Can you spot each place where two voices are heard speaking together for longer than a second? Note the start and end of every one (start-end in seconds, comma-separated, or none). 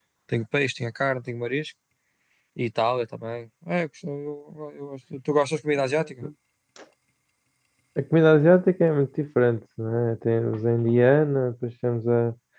none